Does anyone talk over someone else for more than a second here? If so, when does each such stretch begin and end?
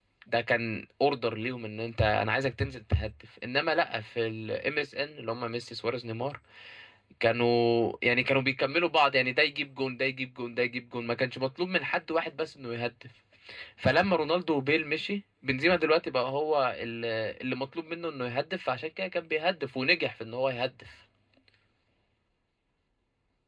none

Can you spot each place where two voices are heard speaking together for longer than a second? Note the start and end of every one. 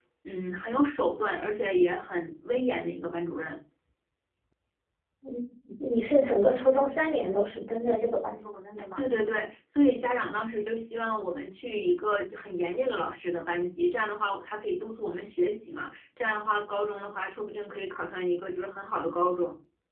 none

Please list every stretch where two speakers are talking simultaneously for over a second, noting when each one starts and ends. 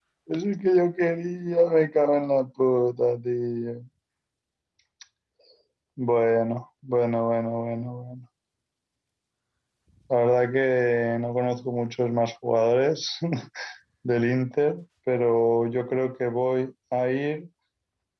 none

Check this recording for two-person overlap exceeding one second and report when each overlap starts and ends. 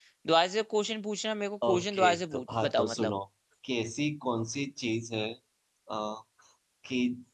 1.7-3.1

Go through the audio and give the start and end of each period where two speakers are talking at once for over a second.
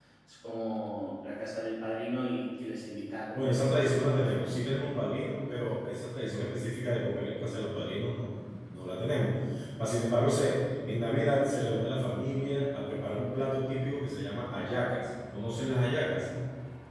3.3-4.7

